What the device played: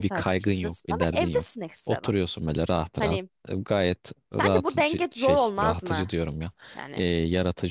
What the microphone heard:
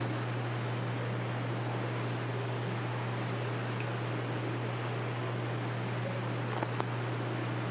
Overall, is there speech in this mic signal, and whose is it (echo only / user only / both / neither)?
neither